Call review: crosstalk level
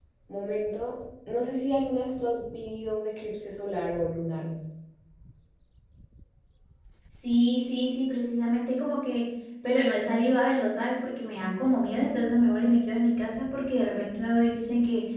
none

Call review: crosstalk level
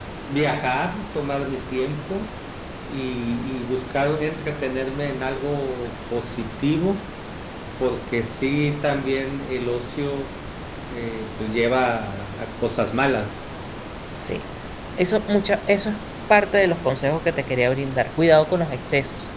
none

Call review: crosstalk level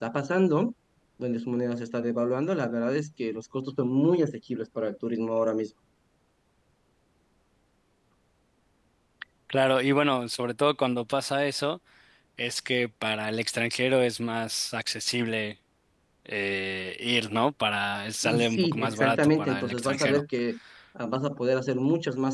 present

